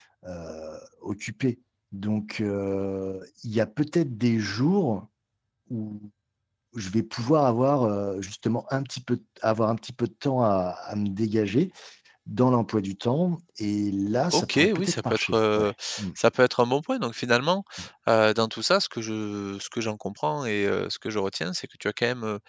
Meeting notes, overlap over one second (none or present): present